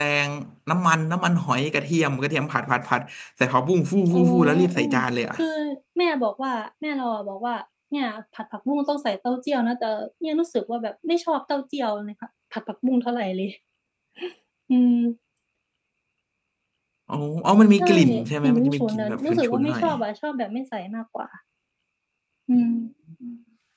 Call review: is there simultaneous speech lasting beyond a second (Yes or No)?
Yes